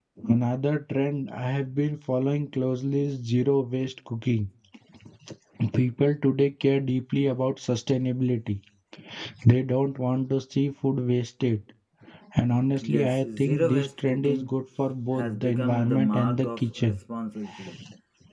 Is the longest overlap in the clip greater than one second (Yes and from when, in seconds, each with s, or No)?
Yes, from 12.8 s